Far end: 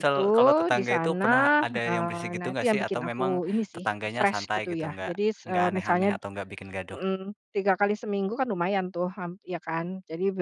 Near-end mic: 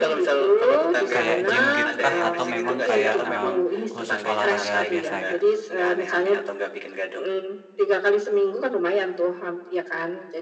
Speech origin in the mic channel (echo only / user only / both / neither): both